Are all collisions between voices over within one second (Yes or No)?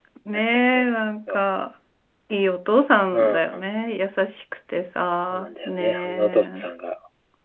No